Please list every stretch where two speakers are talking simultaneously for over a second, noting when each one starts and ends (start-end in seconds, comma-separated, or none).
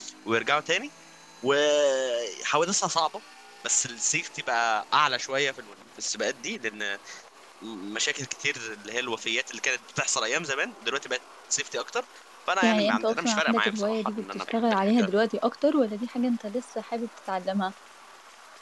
12.6-15.1